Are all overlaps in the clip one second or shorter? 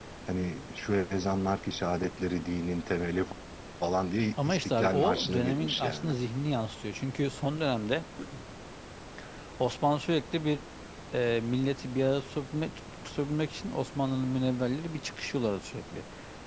No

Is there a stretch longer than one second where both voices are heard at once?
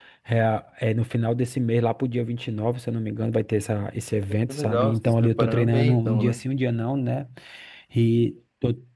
Yes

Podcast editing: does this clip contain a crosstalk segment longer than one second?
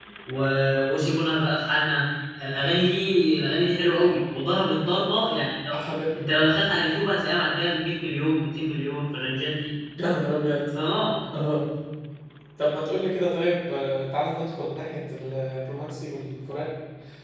No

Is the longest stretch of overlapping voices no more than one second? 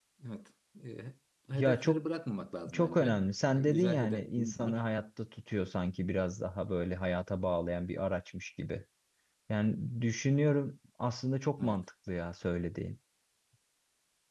No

